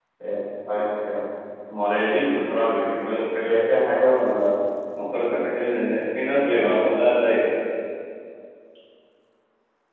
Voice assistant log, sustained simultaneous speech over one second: none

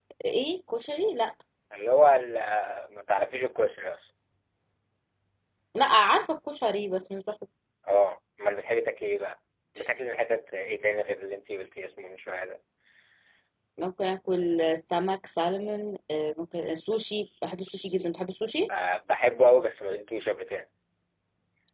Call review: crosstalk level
none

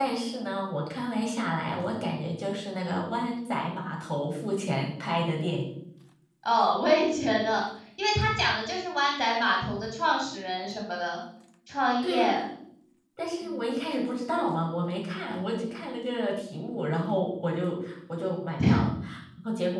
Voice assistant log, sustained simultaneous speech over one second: none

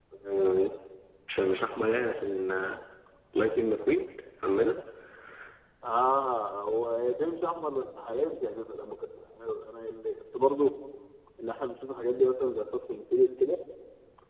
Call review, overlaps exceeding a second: none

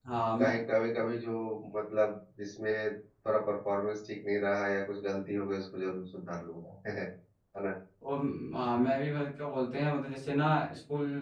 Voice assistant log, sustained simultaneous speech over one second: none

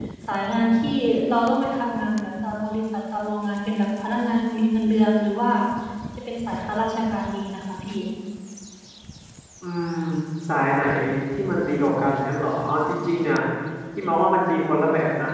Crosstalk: none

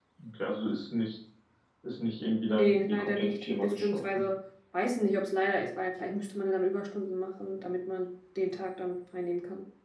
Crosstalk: present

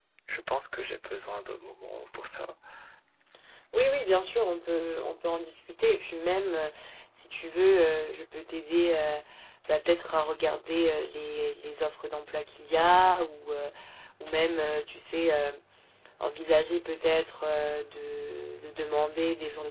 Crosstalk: none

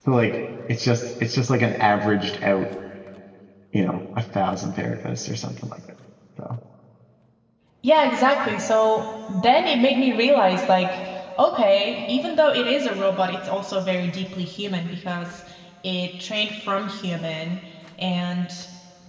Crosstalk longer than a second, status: none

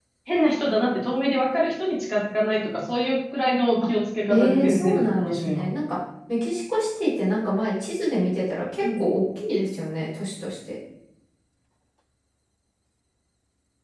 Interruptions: present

